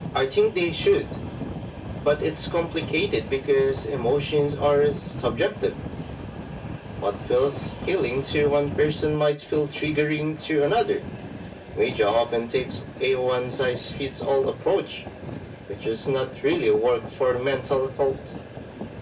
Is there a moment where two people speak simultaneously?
No

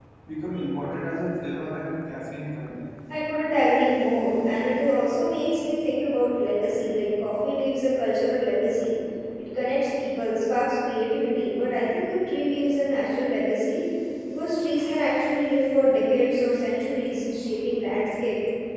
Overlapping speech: No

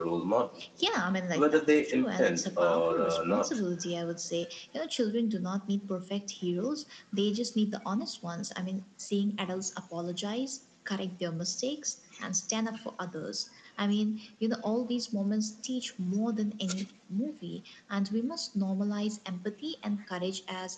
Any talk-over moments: Yes, from 1.3 s

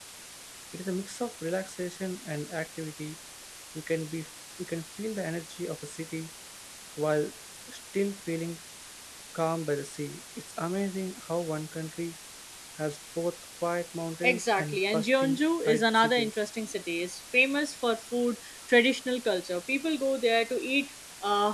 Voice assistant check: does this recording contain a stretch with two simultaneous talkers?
Yes, from 14.2 s

